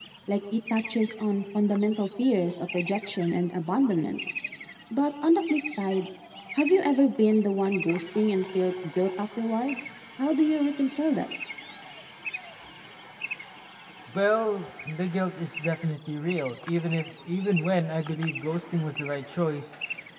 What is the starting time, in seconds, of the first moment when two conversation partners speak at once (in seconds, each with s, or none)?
none